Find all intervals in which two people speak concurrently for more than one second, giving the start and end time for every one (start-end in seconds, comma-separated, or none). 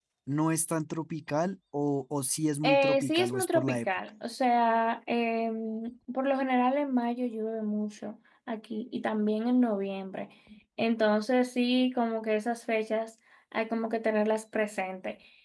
2.6-3.9